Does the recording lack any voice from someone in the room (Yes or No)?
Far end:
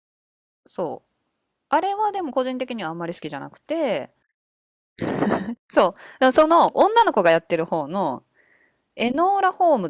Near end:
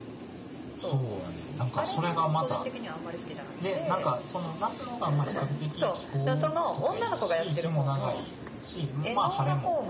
No